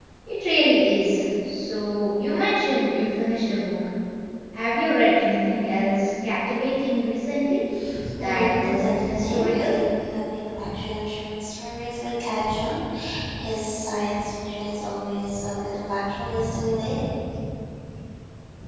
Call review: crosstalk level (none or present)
present